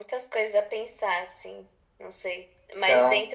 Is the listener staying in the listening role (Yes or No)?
Yes